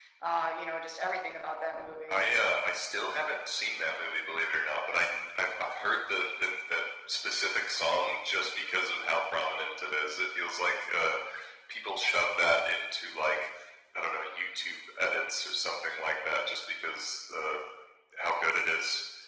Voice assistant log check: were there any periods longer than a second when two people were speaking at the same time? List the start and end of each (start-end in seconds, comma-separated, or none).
none